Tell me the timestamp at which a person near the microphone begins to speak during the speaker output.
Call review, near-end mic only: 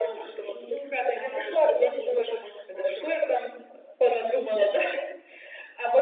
none

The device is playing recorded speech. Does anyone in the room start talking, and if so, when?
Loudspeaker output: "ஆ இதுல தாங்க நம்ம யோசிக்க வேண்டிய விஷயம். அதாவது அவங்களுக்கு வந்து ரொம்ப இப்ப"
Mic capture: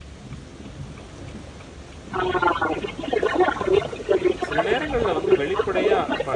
4.5 s

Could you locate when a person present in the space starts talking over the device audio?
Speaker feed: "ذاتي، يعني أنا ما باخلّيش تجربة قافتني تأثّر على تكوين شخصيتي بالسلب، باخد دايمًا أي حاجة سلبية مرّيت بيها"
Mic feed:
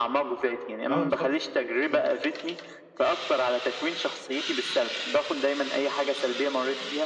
0.9 s

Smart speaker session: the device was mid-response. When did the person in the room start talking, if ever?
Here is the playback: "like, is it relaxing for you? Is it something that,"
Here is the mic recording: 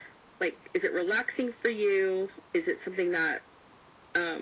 none

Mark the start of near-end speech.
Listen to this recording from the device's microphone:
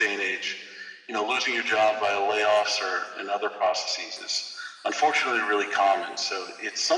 none

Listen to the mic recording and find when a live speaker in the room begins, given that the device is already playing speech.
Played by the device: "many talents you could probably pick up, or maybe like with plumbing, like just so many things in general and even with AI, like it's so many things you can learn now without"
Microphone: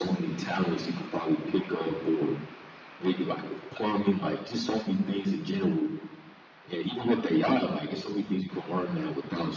none

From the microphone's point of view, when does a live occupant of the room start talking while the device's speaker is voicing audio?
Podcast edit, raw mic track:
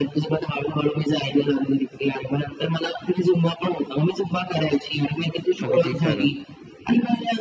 5.7 s

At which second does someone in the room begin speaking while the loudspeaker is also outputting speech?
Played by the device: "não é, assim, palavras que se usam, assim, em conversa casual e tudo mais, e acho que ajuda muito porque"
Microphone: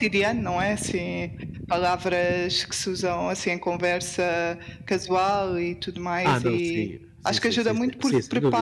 6.2 s

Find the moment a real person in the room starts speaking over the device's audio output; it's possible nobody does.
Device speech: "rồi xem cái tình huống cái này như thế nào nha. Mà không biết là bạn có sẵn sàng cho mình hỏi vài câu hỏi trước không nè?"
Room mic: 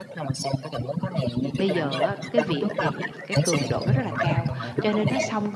1.6 s

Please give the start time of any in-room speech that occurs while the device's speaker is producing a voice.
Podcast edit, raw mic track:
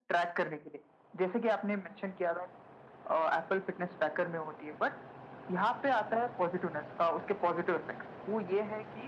none

